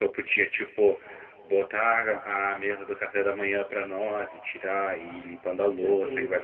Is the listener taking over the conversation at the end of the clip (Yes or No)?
No